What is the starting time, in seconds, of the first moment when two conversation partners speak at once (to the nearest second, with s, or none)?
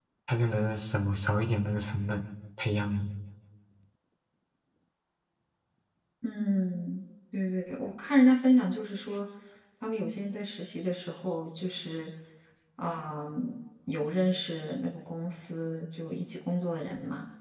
none